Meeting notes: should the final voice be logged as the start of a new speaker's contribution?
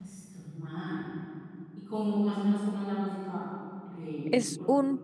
Yes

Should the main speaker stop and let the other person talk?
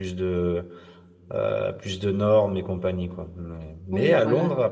No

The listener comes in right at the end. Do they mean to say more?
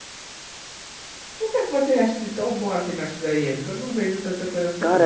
Yes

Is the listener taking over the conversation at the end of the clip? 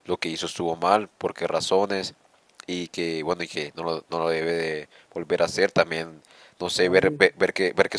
No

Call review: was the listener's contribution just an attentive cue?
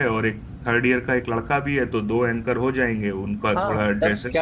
No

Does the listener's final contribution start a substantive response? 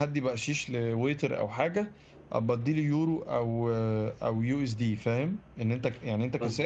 No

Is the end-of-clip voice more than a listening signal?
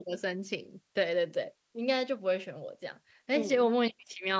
No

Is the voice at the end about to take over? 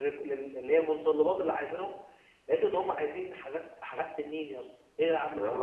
Yes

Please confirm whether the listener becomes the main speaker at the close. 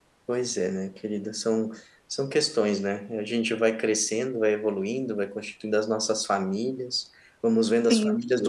No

